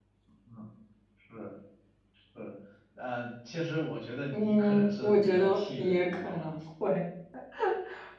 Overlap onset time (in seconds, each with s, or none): 4.3 s